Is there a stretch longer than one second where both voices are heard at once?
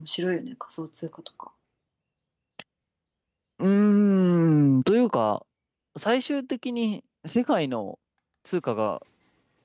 No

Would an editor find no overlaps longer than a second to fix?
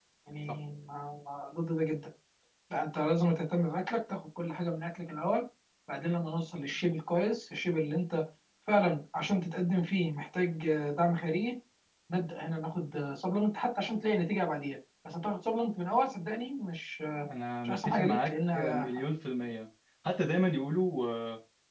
No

